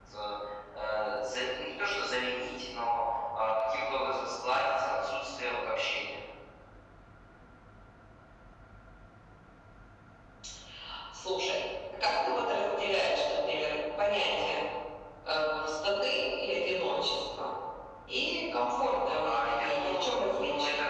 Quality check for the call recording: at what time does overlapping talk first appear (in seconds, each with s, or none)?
19.2 s